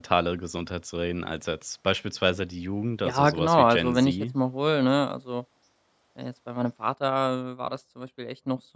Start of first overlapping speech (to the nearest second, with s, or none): 3 s